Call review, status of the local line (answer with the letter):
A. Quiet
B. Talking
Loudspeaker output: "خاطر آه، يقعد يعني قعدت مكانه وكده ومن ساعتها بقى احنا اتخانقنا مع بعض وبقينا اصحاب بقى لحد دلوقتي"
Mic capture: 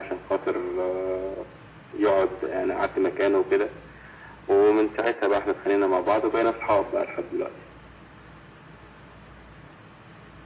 A